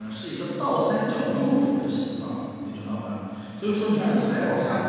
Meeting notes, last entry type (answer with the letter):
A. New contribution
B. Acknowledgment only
B